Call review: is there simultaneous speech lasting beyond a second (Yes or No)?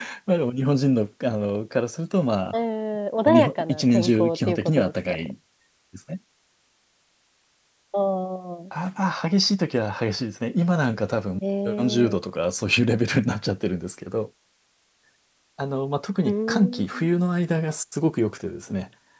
Yes